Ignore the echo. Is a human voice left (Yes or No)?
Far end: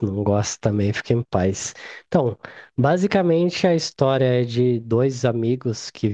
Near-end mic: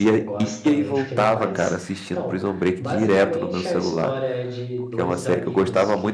Yes